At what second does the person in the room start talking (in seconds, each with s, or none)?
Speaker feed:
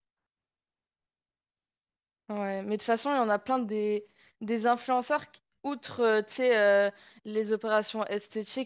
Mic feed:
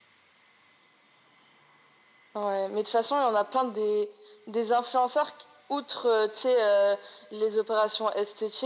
none